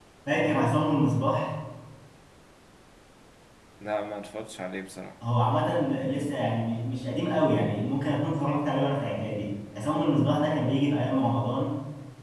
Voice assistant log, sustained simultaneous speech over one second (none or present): none